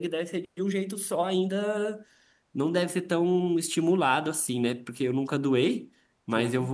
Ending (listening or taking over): listening